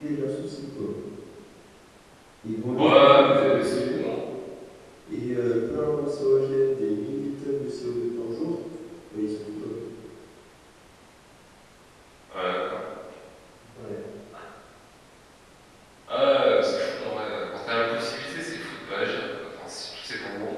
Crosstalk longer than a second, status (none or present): present